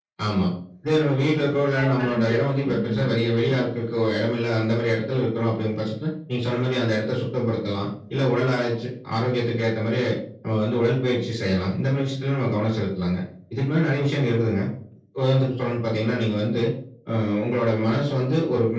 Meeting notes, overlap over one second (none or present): present